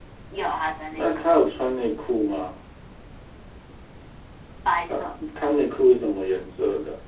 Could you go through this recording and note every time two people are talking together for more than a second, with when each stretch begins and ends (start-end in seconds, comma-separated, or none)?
none